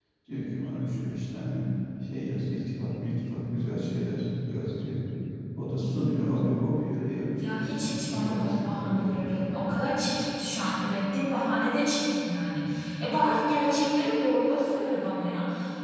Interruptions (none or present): present